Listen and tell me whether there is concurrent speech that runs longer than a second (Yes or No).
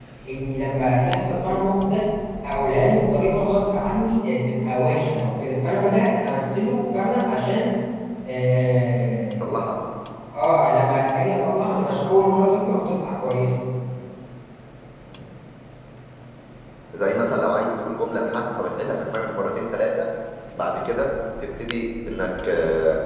No